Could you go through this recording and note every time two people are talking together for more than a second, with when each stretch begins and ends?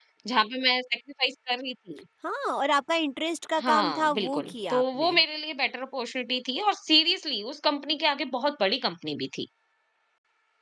3.6-5.1

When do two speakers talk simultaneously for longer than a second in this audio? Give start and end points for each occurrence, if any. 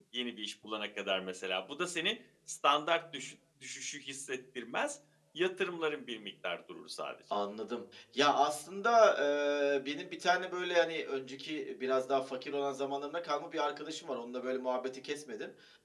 none

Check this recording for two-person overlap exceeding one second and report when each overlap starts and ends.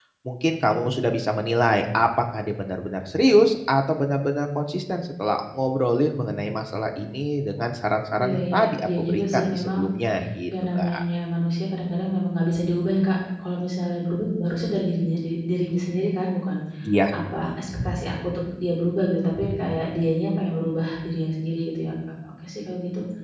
8.2-9.8

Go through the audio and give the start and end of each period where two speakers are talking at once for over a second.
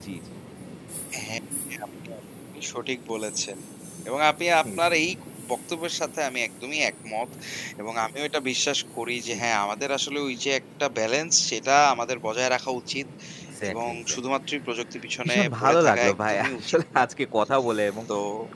15.2-17.0

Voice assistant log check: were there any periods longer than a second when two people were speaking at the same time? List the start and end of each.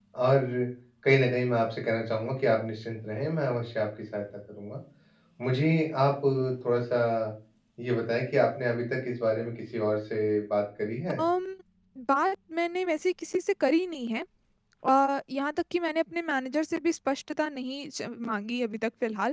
none

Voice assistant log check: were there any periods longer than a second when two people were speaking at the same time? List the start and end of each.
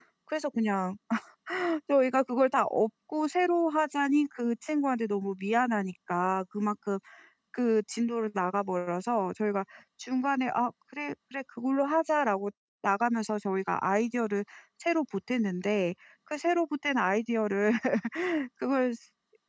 none

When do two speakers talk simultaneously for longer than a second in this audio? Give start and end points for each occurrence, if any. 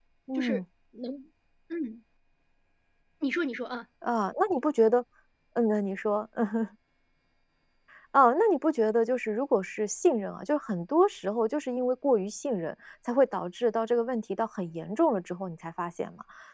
none

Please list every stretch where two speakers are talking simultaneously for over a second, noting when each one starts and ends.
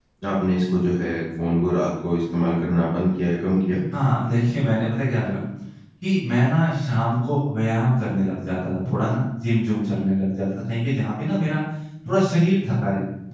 none

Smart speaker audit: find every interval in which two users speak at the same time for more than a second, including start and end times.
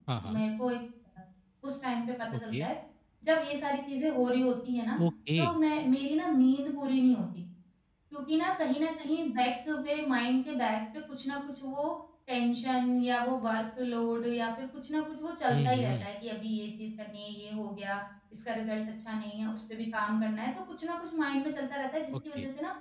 none

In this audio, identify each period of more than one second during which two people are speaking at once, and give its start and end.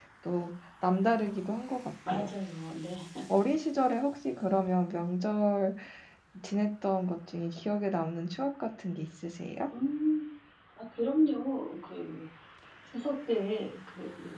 none

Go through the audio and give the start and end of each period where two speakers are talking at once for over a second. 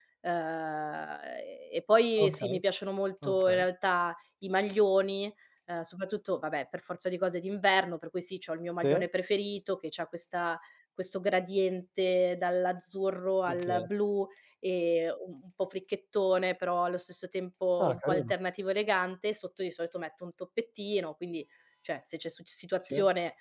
none

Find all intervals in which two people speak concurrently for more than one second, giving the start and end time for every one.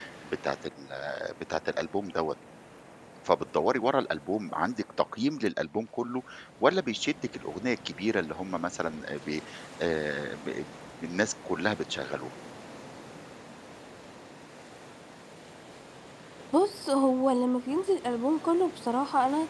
none

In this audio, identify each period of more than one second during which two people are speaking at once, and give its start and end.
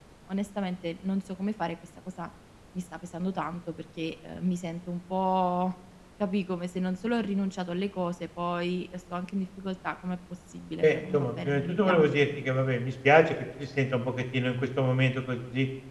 10.8-12.2

